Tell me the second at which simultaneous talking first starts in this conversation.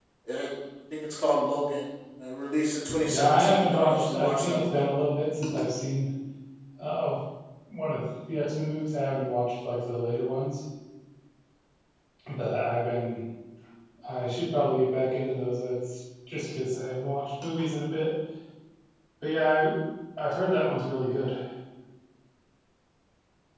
3 s

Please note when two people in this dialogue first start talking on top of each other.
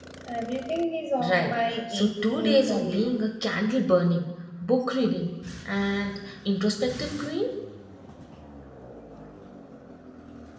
1 s

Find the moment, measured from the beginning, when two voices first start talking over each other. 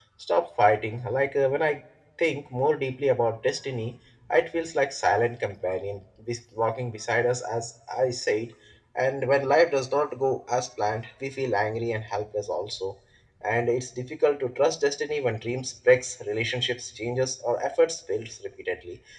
none

